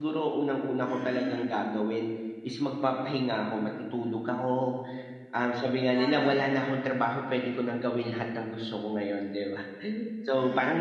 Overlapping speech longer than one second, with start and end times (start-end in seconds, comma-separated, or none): none